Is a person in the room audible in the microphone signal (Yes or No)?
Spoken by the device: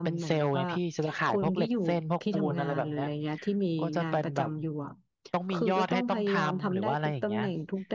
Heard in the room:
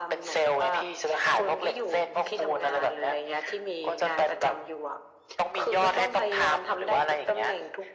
No